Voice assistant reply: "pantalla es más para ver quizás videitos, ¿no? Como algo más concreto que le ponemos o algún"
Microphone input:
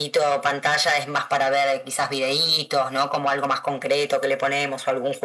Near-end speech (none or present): none